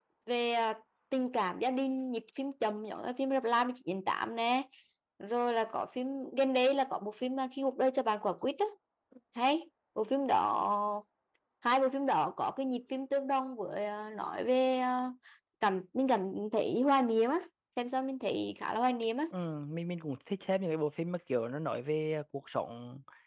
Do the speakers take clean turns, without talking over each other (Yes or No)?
Yes